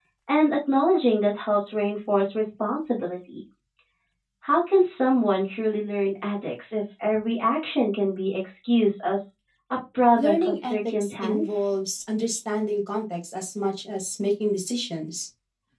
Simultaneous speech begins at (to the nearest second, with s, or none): 10 s